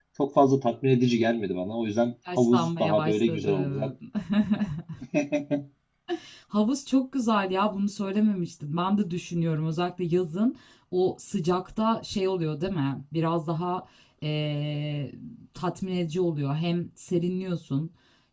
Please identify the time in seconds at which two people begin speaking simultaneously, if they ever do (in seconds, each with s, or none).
2.2 s